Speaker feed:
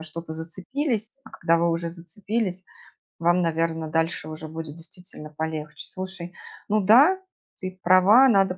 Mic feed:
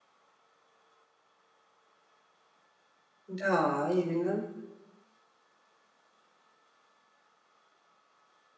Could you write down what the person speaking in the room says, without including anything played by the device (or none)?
Да, именно.